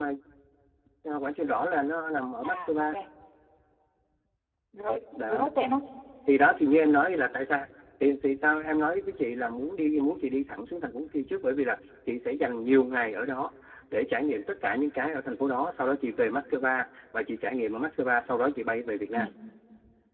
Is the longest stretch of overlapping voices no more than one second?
Yes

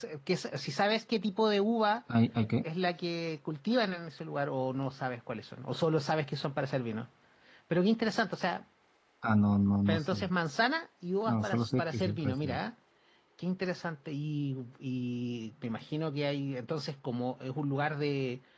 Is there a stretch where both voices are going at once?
Yes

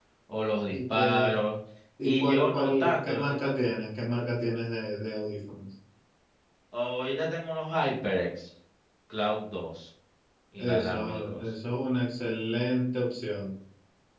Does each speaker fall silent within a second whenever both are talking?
No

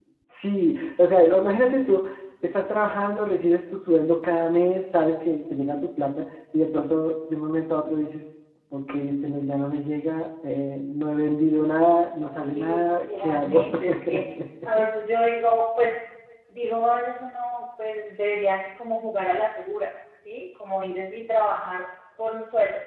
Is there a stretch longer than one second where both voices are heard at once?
Yes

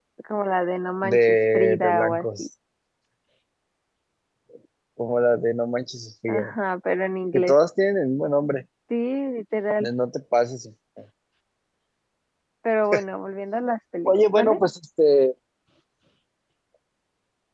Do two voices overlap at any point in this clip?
Yes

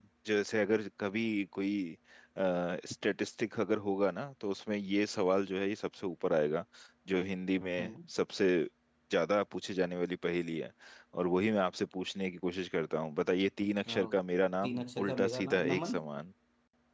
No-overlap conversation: No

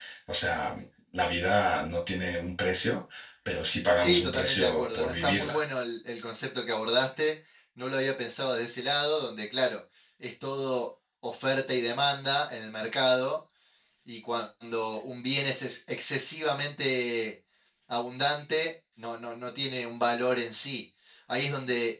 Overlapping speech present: Yes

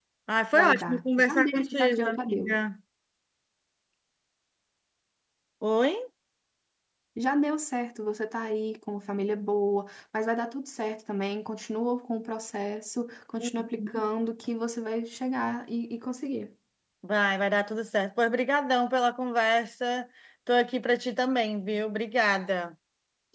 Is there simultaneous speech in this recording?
Yes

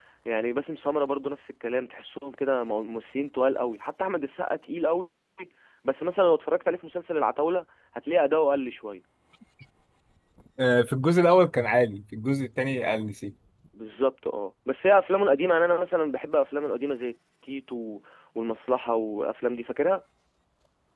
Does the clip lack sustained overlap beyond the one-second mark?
Yes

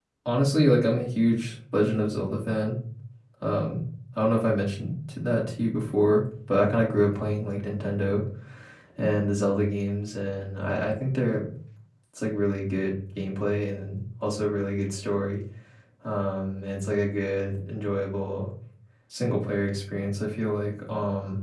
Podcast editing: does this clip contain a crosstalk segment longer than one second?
No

